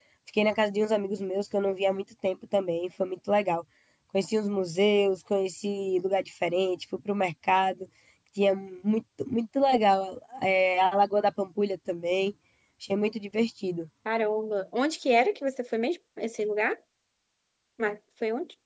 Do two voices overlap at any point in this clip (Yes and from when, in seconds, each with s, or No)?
No